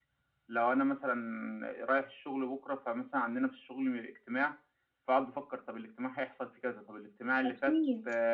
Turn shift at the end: No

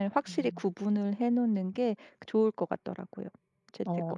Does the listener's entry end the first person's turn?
Yes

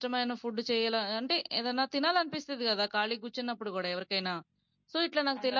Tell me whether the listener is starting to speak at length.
No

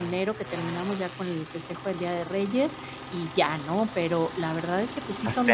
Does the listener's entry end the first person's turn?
No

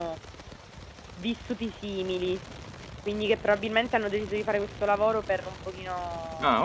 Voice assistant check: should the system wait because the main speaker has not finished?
Yes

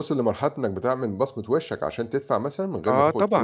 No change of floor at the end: No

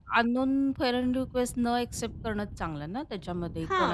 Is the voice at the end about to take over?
Yes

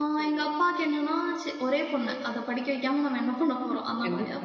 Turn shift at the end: No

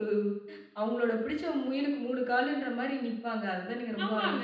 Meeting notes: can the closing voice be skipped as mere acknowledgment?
No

